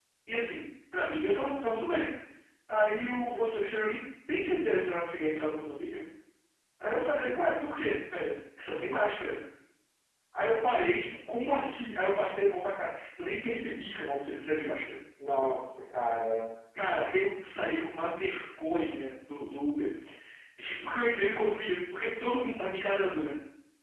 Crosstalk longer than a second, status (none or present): none